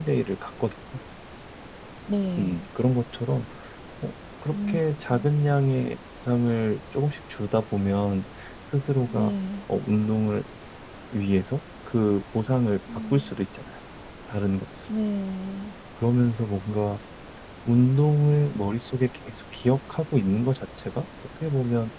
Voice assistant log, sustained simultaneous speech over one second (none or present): none